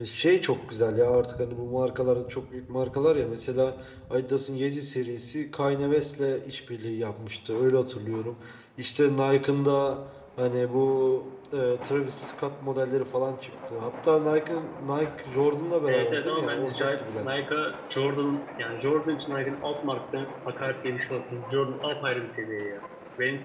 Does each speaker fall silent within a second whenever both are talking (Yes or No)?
No